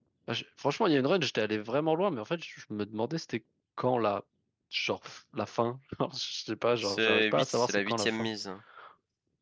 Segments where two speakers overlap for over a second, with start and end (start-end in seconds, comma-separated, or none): 6.8-8.3